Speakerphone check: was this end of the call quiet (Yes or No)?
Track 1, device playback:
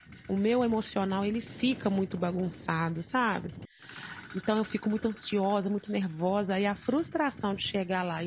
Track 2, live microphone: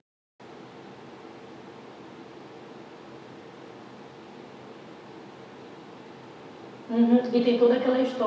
No